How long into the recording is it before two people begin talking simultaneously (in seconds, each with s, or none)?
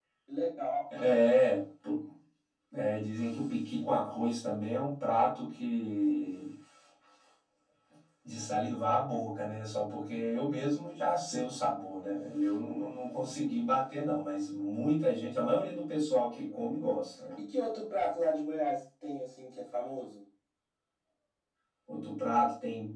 none